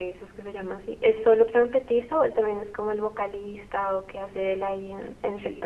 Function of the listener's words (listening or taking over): taking over